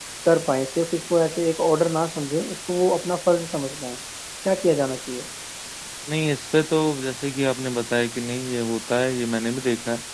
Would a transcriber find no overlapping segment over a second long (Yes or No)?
Yes